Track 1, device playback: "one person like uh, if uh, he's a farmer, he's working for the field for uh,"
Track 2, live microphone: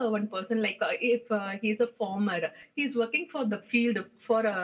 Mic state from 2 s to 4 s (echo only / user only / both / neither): echo only